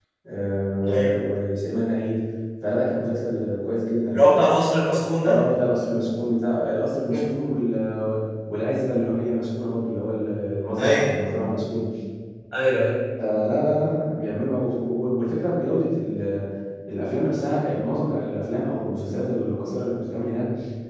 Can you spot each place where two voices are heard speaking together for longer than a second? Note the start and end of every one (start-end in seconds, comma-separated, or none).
none